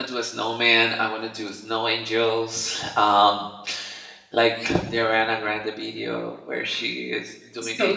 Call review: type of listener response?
listening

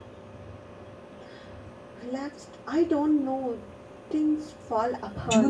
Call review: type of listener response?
taking over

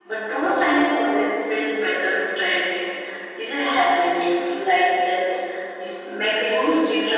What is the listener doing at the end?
taking over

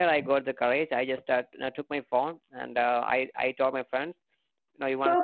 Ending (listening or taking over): taking over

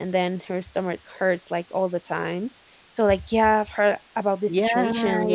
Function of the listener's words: taking over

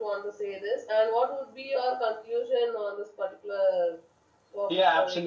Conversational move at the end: taking over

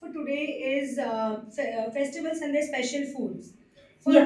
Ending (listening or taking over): listening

